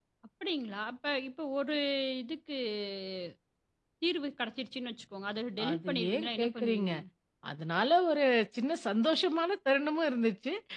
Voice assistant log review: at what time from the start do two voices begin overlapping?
6 s

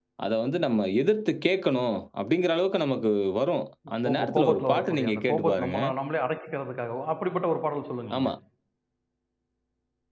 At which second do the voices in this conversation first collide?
4 s

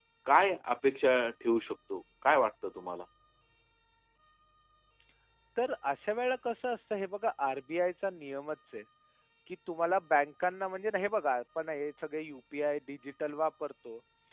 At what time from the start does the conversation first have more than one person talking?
none

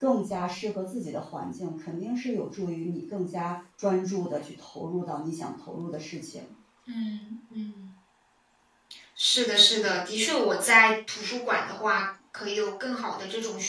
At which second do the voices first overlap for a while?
none

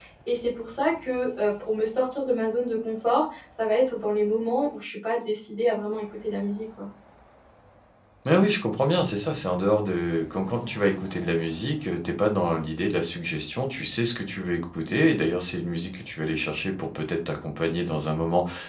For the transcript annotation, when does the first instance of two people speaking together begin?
none

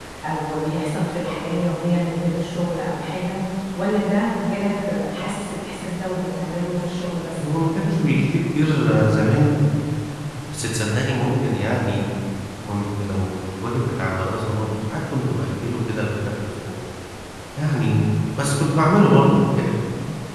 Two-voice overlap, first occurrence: none

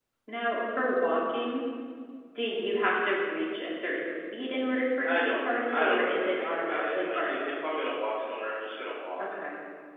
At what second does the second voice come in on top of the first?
5 s

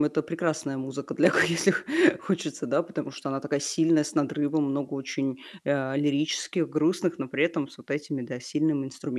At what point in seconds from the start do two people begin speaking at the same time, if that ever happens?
none

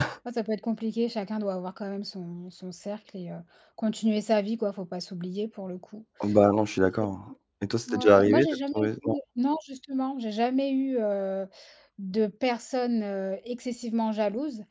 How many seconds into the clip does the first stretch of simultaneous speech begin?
8 s

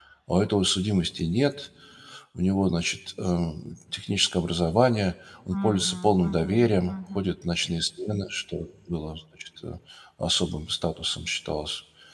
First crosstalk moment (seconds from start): 6 s

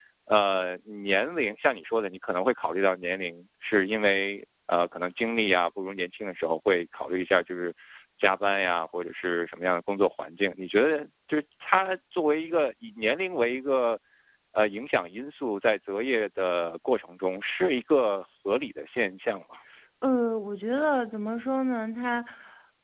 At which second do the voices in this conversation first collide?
none

